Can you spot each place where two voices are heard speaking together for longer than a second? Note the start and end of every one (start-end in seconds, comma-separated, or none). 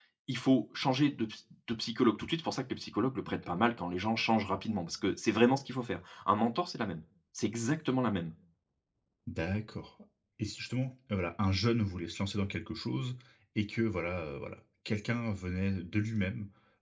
none